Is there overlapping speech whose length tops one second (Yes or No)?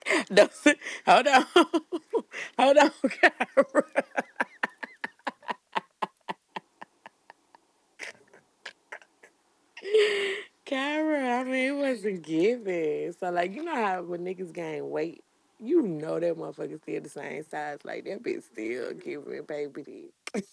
No